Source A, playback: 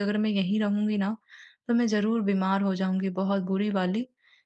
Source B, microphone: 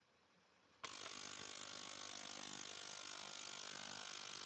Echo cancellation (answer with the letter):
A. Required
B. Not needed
B